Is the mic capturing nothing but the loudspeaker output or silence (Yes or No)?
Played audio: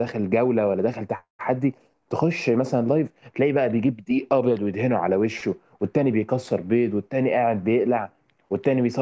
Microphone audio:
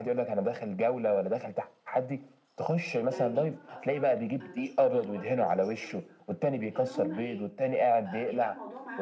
No